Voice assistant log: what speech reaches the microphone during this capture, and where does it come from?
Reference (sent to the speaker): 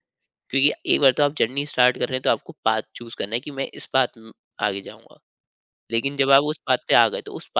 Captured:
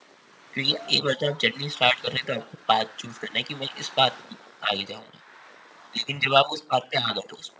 echo only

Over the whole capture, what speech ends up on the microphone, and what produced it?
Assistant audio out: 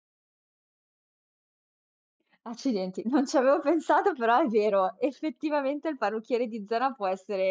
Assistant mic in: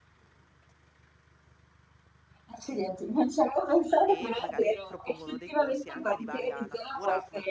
both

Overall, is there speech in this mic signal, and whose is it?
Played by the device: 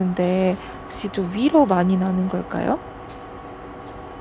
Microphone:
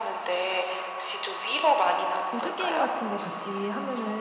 both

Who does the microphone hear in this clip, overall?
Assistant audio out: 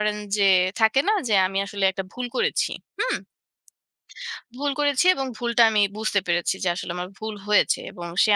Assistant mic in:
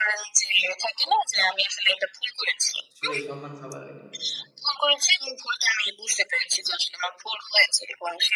both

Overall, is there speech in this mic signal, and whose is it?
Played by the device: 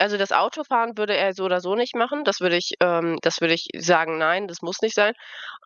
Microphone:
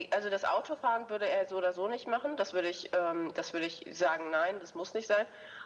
echo only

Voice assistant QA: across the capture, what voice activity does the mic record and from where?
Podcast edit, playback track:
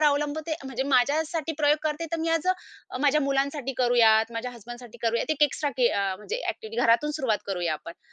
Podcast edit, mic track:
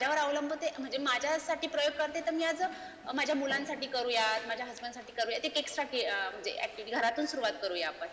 echo only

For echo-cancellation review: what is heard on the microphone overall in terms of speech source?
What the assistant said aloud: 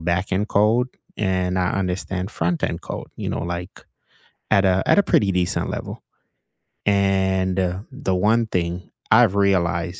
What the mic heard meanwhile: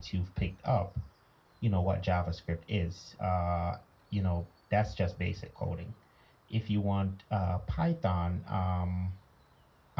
user only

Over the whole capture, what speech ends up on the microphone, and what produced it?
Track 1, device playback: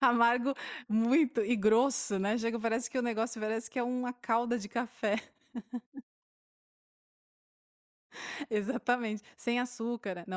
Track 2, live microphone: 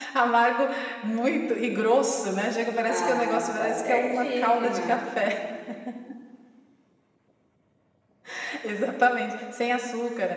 both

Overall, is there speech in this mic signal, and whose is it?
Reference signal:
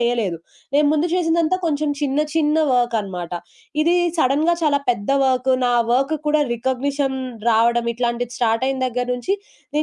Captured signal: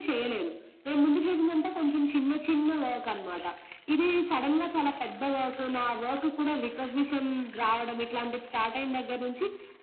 echo only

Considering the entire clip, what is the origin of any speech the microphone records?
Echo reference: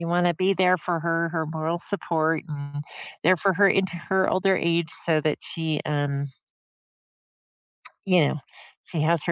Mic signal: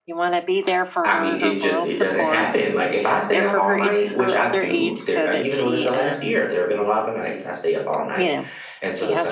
both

